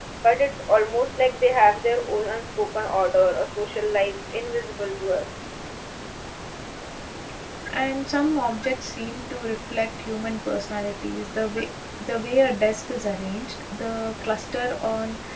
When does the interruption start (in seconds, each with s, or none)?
none